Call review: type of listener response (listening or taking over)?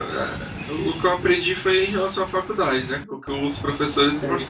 listening